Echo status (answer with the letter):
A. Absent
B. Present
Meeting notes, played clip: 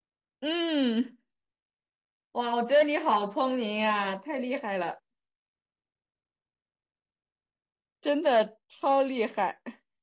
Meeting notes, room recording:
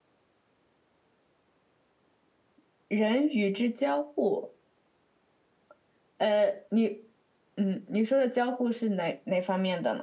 A